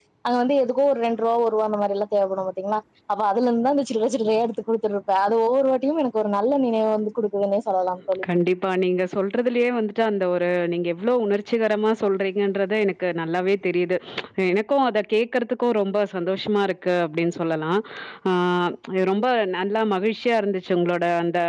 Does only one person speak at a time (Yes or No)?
Yes